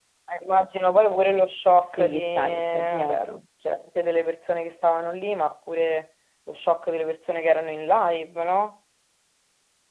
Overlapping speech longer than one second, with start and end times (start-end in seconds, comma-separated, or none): 1.9-3.4